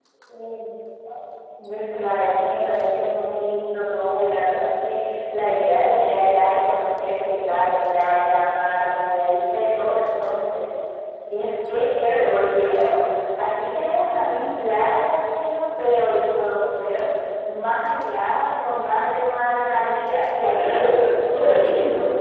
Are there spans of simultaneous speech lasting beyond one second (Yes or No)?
Yes